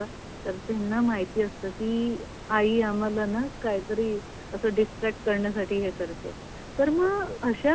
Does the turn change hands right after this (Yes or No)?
No